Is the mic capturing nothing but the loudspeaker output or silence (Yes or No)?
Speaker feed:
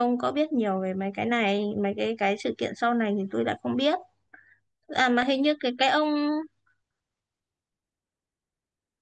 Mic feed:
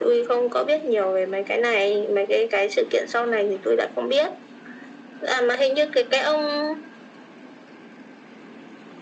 Yes